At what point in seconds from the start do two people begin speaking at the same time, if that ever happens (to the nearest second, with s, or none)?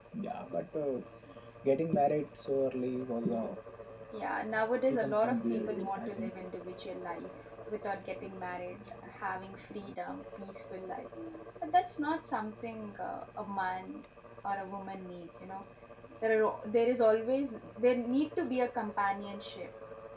5 s